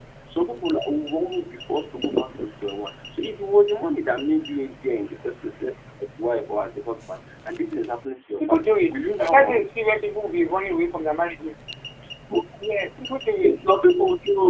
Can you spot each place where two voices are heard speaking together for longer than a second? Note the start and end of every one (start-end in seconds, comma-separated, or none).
8.4-9.7